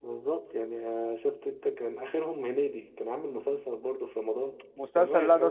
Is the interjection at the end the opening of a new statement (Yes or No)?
Yes